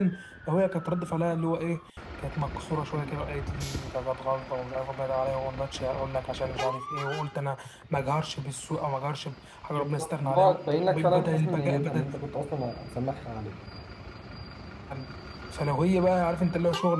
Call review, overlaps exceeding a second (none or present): present